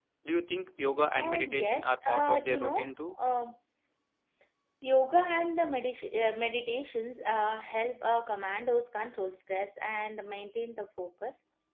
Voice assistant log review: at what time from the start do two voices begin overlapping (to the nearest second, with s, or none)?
1 s